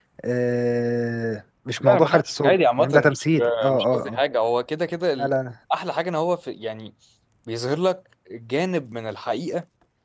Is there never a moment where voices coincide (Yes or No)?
No